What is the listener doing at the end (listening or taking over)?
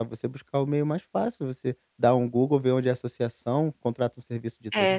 taking over